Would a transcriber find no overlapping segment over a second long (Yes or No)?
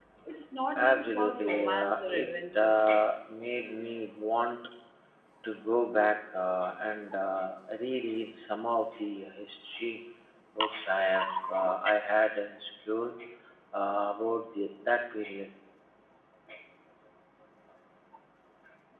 No